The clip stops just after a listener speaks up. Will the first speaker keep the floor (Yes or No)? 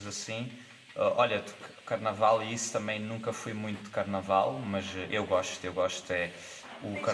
No